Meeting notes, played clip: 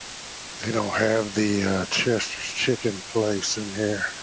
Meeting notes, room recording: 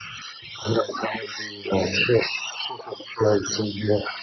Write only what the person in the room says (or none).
none